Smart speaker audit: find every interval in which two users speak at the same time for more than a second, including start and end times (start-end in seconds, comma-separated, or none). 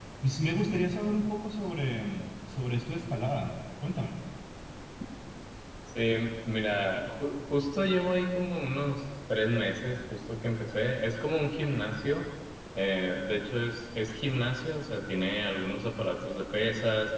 none